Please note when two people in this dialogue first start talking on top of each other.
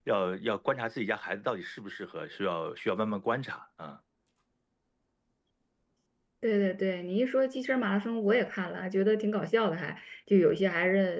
none

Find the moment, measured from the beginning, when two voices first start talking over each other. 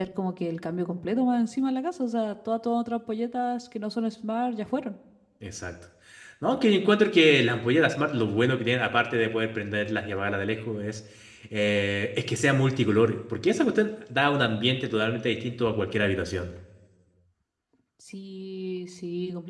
none

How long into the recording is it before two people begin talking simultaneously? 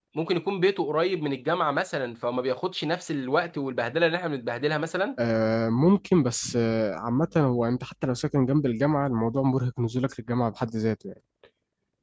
none

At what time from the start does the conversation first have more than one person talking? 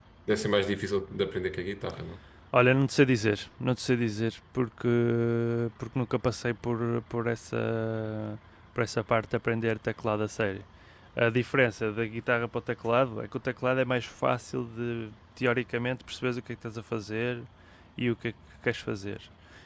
none

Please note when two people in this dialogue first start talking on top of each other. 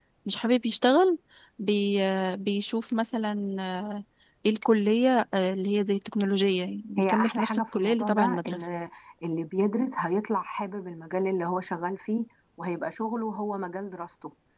7 s

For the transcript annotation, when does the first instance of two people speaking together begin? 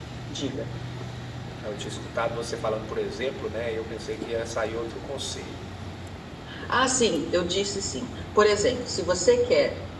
none

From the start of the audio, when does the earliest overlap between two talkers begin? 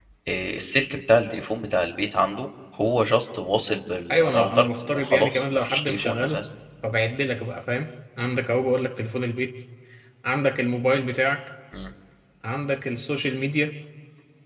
4 s

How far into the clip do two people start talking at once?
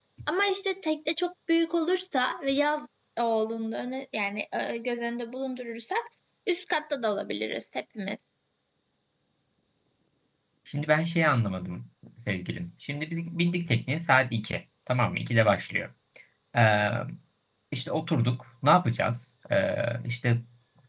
none

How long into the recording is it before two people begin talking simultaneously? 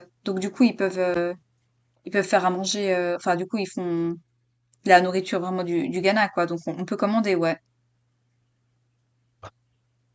none

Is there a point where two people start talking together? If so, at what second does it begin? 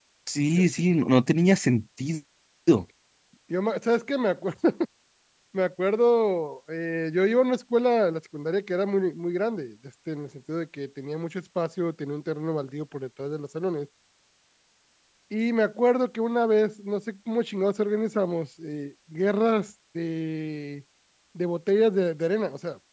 none

